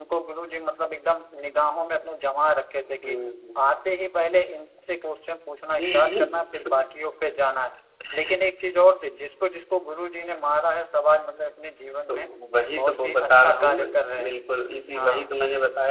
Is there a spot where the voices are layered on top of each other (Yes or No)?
Yes